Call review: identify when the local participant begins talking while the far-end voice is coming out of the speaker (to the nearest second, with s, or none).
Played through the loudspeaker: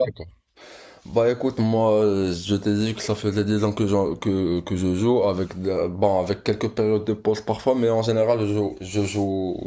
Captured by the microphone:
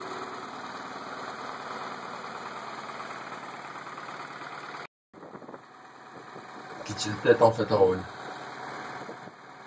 7 s